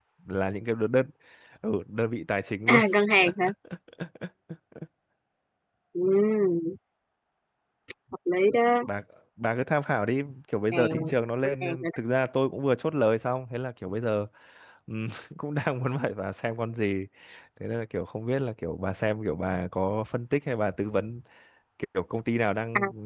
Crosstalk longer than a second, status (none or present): none